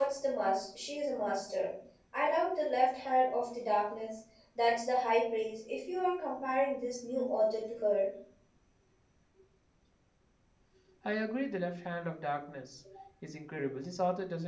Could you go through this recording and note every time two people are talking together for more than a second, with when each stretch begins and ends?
none

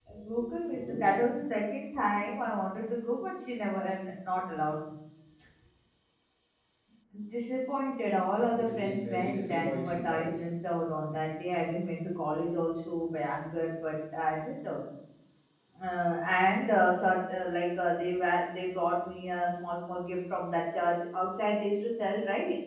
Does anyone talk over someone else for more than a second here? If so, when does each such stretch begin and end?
8.4-10.5

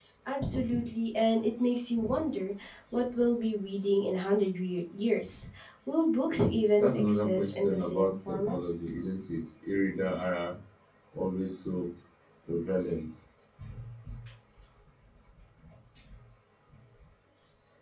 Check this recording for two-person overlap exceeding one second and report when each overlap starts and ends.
6.8-8.6

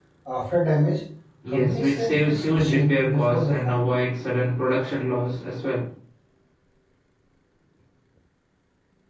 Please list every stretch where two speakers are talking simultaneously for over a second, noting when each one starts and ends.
1.5-3.9

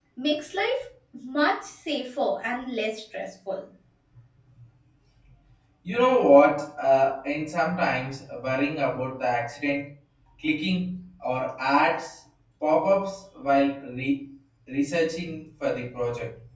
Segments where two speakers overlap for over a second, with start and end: none

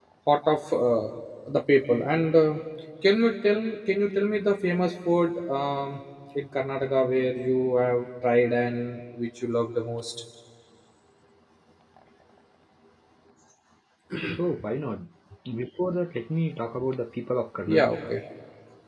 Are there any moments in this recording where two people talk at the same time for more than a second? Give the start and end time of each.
none

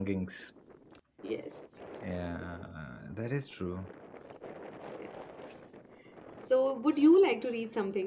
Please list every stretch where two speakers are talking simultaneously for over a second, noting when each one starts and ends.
none

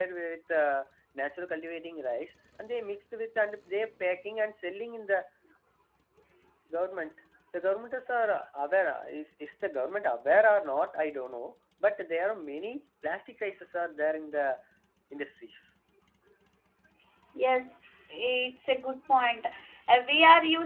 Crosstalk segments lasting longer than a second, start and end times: none

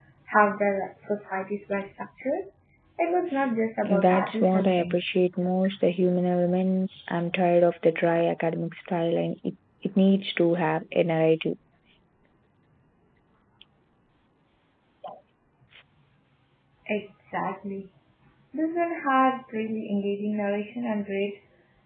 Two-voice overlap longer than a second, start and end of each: 3.9-5.2

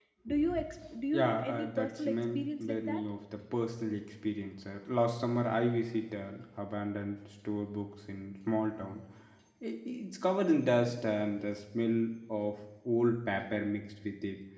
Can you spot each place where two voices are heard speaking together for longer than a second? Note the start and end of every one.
1.1-3.0

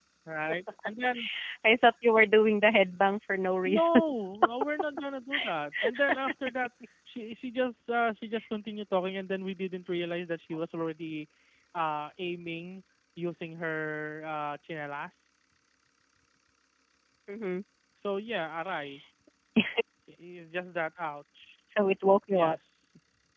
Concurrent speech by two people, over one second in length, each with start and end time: none

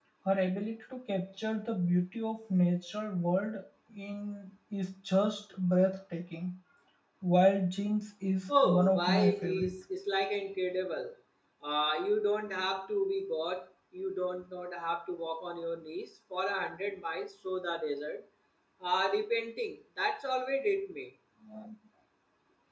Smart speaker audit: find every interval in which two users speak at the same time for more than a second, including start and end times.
8.5-9.7

